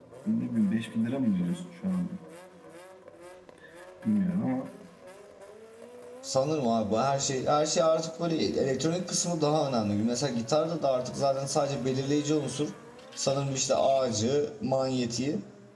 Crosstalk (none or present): none